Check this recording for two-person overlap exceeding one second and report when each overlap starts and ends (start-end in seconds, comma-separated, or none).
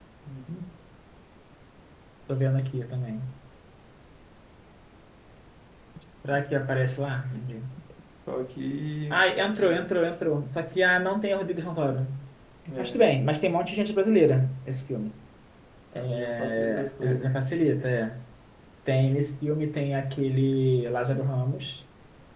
15.9-17.3